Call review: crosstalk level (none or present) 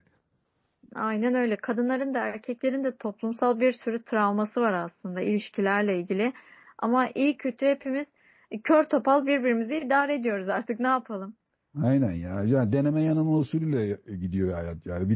none